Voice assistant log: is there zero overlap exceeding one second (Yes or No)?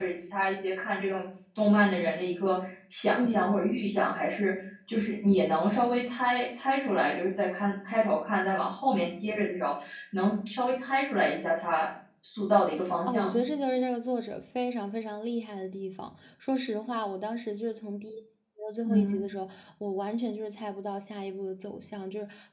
Yes